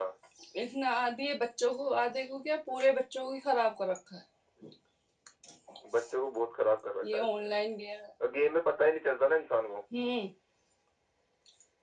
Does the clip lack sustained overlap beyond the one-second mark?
Yes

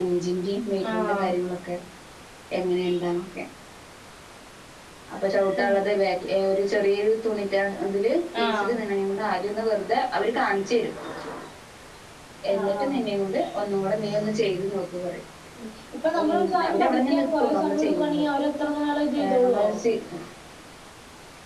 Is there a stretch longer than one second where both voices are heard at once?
Yes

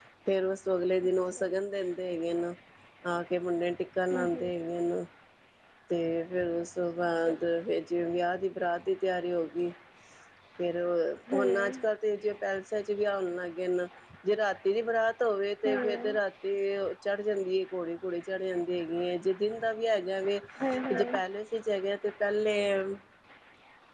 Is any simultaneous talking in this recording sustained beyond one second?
No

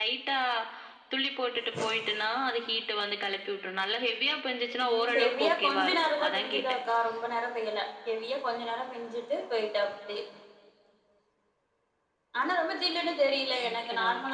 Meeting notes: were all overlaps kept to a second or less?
No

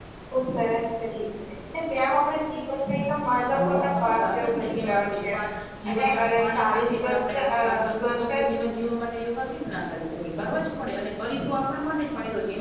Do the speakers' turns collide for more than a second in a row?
Yes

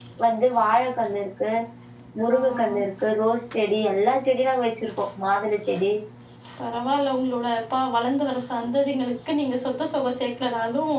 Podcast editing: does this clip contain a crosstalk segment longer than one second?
No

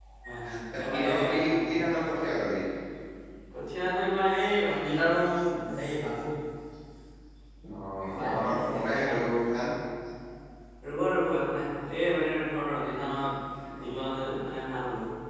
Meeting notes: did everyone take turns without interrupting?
No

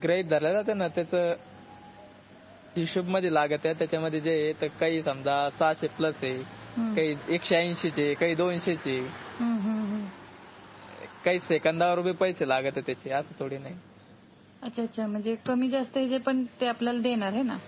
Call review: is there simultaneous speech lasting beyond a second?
No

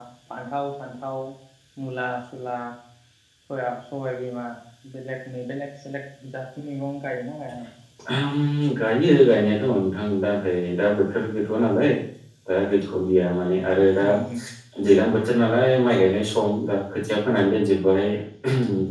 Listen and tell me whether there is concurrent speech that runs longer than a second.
No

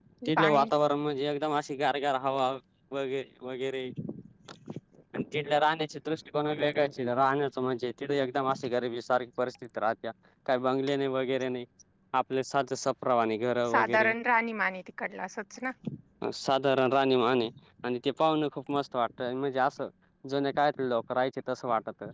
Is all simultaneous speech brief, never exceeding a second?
Yes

